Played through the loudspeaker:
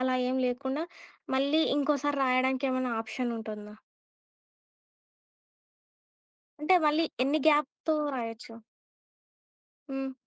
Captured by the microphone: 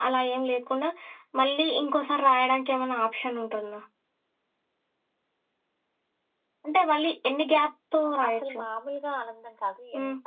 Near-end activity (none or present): present